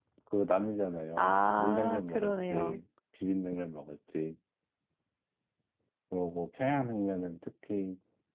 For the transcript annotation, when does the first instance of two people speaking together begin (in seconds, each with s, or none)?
1.2 s